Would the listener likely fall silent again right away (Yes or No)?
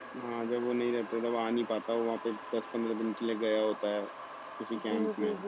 No